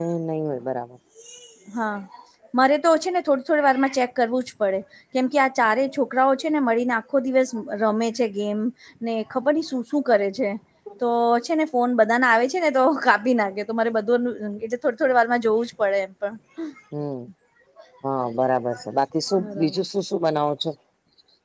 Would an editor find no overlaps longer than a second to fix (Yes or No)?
Yes